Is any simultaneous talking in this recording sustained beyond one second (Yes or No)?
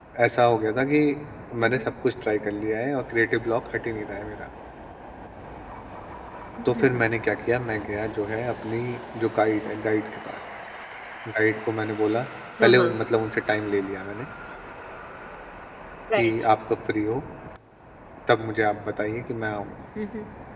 No